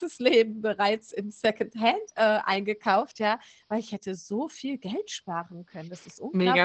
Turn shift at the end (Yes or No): Yes